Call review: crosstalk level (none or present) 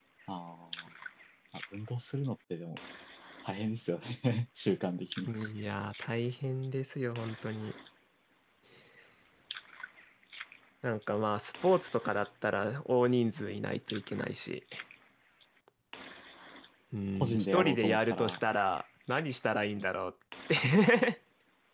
present